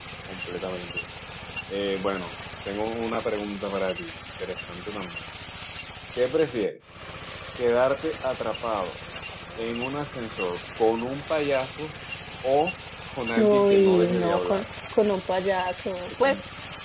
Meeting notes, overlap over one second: present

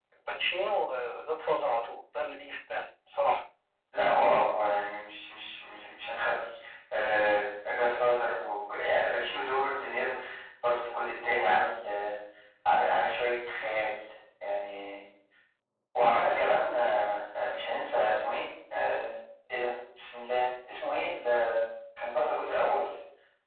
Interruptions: none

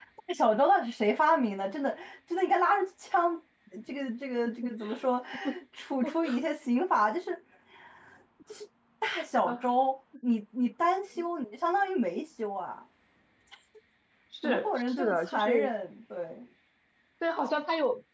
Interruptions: present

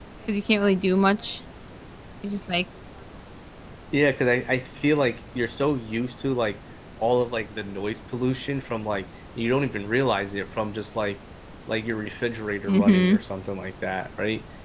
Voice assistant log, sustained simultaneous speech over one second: none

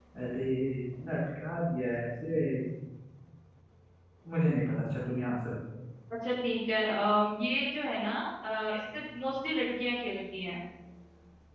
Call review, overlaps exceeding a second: none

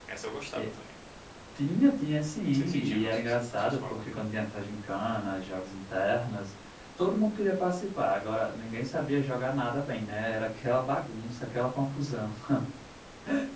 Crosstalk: present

